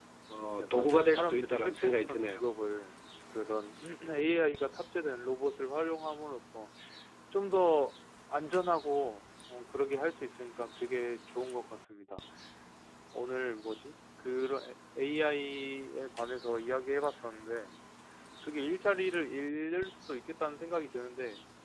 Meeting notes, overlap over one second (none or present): present